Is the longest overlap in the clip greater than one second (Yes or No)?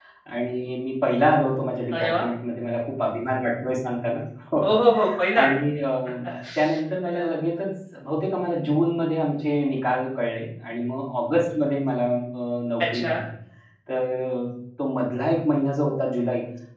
No